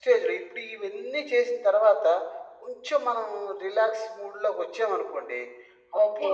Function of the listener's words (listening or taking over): listening